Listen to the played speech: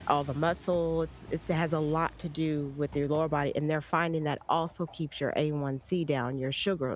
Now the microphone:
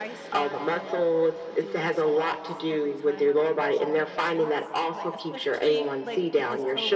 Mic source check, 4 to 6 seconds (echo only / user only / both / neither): both